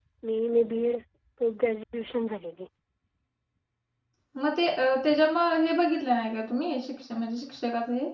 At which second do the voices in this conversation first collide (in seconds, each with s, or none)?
none